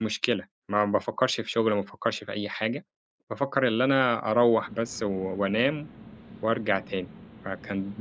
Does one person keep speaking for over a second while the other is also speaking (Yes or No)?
No